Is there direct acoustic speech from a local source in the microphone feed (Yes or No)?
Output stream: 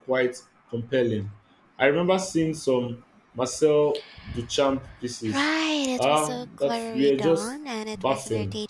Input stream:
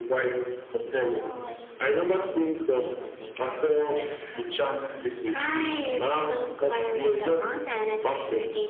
Yes